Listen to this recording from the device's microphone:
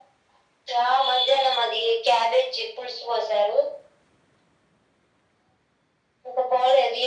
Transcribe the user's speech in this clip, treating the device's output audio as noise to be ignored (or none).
none